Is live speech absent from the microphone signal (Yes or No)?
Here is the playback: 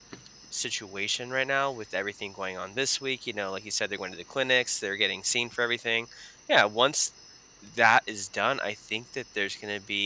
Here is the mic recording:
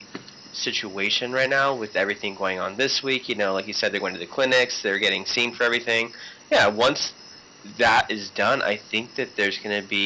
Yes